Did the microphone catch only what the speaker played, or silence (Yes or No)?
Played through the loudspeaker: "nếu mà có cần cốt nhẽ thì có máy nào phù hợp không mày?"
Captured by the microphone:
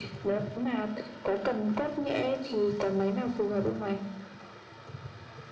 Yes